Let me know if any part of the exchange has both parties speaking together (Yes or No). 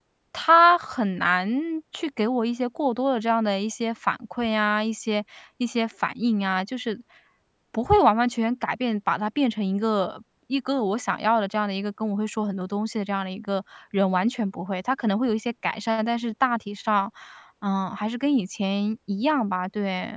No